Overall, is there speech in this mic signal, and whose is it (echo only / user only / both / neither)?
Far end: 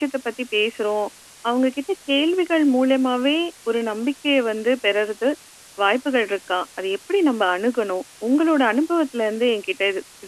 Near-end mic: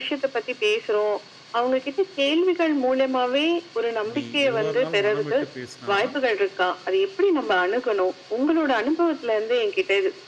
both